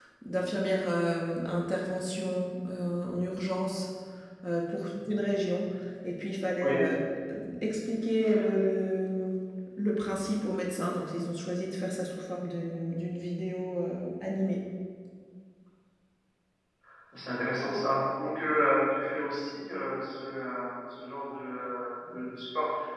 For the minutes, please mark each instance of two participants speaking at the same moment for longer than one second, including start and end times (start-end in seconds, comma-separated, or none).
none